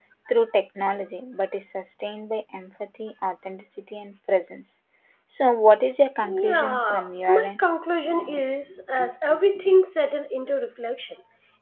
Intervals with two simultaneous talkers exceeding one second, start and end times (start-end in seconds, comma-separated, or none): 6.2-7.6